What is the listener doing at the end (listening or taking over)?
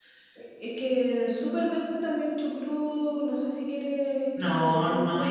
taking over